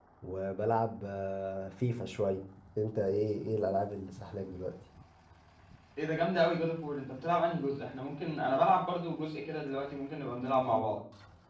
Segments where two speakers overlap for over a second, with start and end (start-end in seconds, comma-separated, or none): none